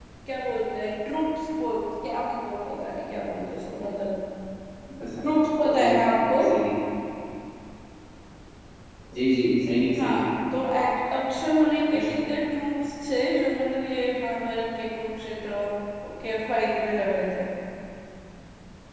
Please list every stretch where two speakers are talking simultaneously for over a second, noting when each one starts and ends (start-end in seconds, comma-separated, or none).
none